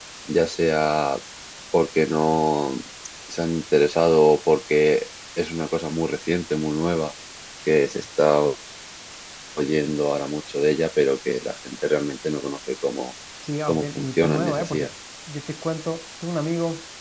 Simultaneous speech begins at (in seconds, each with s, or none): 13.7 s